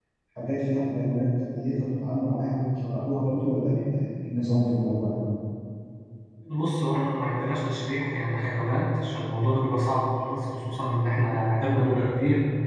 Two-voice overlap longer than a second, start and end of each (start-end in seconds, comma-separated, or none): none